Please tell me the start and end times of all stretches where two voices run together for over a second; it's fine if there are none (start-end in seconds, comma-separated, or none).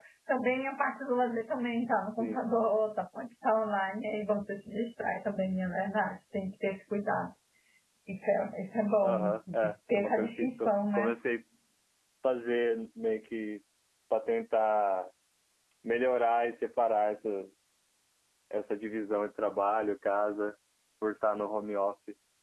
9.0-11.2